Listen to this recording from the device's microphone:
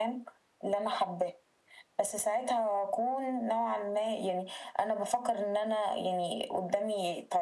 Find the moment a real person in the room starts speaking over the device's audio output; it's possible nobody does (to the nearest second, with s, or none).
none